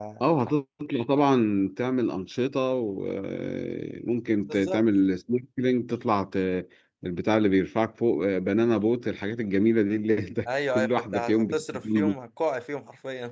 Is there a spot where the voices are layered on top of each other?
Yes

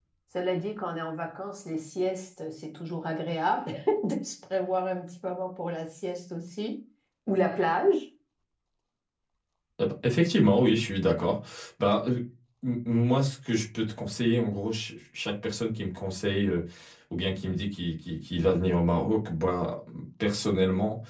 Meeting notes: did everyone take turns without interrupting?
Yes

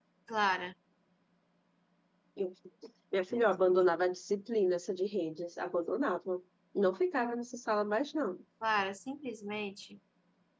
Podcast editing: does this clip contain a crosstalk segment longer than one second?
No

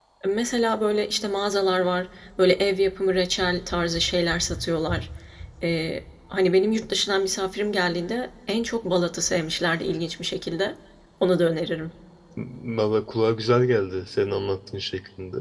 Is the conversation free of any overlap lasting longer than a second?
Yes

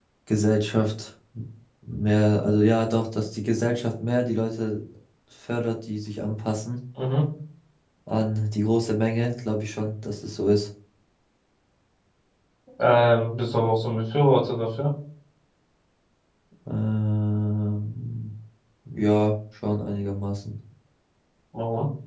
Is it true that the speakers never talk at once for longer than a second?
Yes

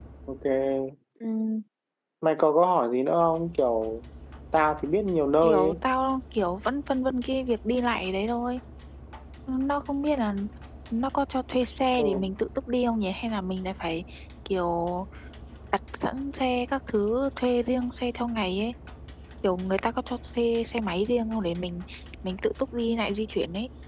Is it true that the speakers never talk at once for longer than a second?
Yes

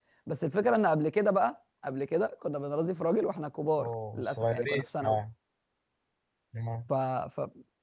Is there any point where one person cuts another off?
Yes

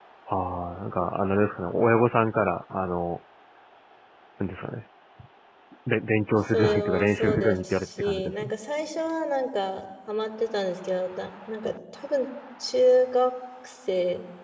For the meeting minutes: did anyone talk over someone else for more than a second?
Yes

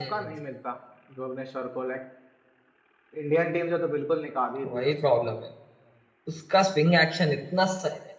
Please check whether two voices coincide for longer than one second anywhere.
No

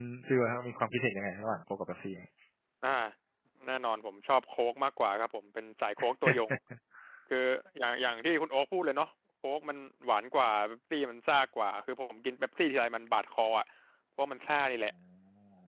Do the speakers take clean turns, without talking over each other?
Yes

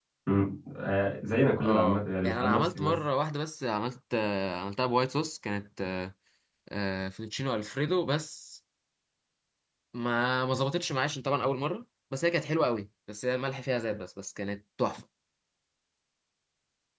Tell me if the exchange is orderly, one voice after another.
No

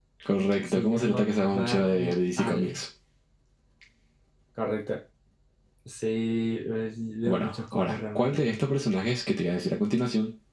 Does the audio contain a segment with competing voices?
Yes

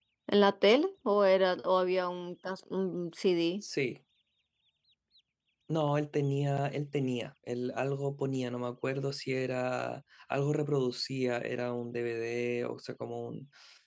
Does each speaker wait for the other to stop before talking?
Yes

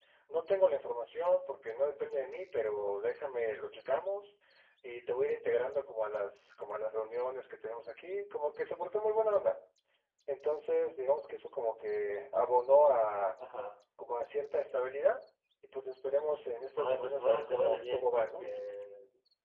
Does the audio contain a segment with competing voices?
Yes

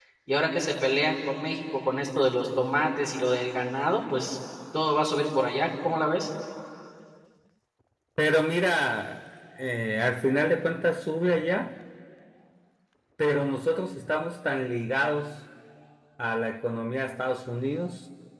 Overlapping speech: No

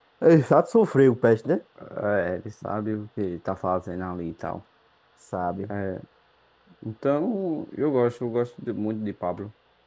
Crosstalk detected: No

